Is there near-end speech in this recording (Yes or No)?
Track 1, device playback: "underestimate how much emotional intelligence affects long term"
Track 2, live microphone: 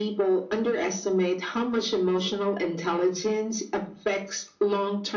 No